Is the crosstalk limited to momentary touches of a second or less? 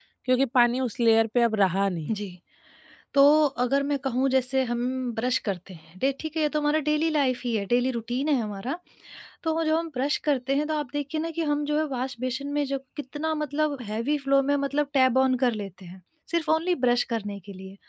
Yes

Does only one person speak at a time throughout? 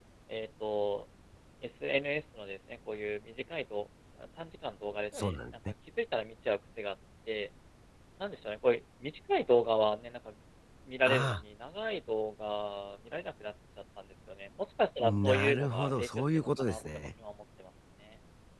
No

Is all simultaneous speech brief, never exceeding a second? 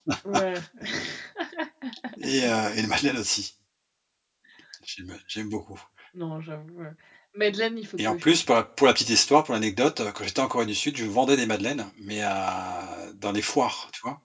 Yes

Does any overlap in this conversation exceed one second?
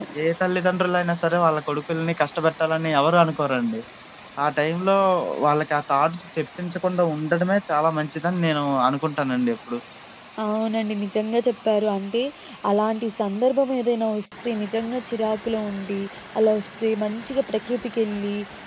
No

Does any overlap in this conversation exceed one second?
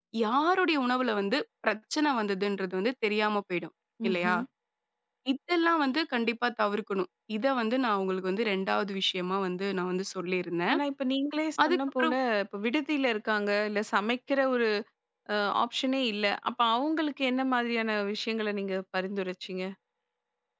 No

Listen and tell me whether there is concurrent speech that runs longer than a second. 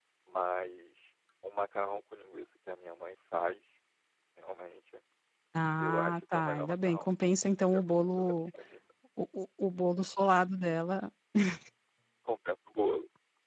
Yes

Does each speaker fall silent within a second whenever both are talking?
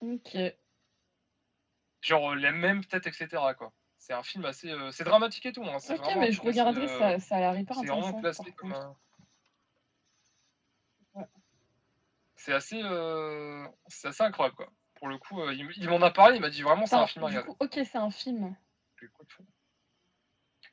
No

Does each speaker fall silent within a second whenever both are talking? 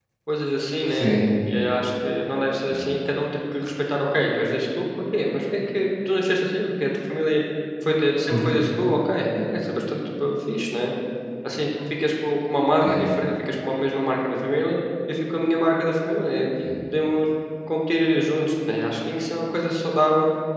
Yes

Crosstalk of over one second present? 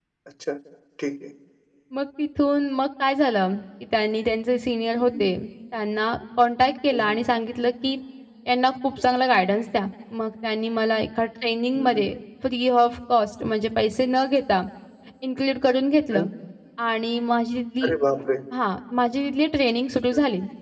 No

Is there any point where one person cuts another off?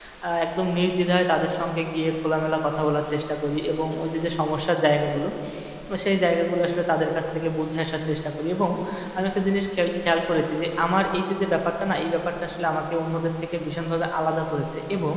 No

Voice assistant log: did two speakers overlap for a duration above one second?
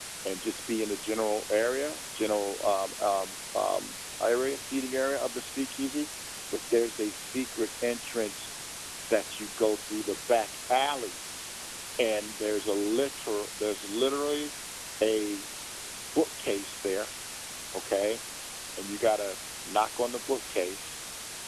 No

